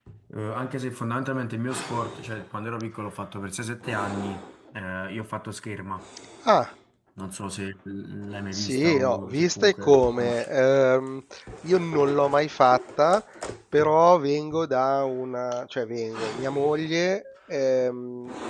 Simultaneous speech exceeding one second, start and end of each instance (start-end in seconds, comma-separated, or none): 8.5-10.5